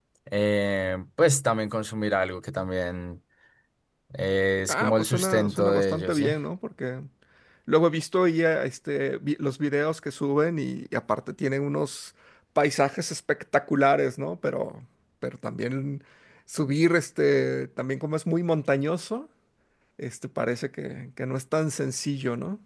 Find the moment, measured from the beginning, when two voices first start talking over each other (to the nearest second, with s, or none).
5 s